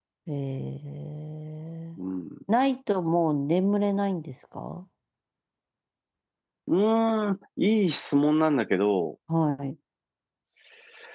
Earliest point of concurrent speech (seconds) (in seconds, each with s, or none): none